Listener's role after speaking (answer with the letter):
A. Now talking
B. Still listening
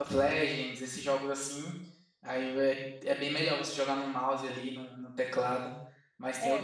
A